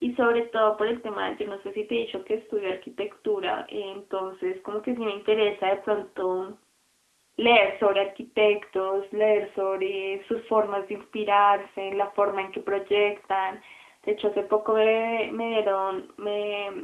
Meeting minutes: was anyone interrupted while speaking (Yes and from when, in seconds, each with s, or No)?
No